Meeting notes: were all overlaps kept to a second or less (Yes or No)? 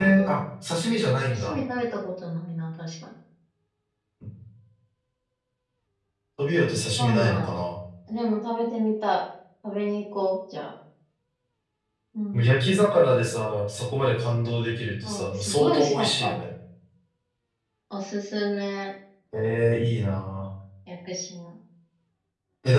No